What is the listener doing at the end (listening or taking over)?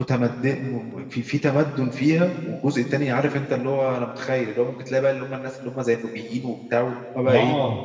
taking over